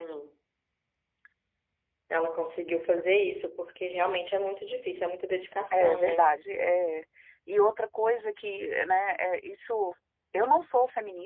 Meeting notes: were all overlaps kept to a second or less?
Yes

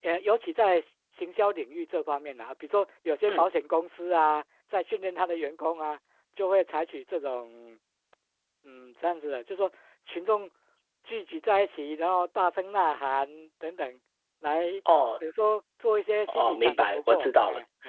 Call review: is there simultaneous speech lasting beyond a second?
Yes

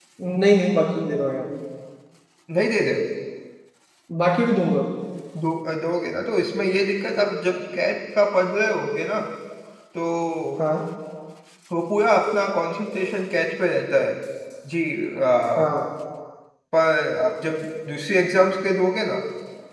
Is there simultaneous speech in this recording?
No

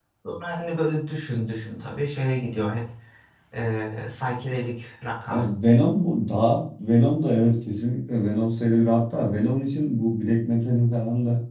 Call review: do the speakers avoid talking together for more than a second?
Yes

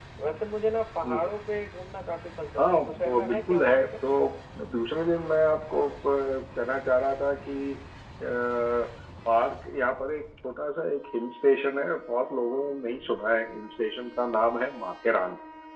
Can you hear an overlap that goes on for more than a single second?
Yes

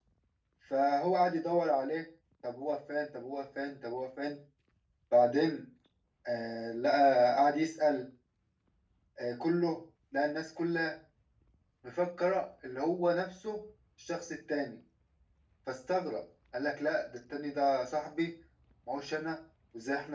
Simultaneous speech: No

